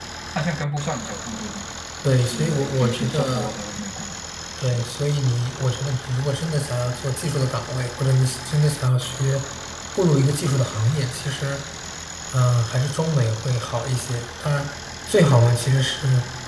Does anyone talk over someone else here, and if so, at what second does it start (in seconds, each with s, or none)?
2.1 s